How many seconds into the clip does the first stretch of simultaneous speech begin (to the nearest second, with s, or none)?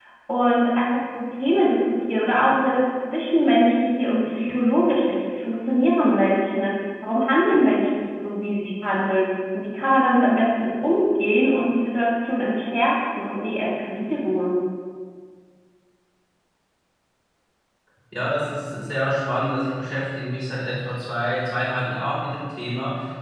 none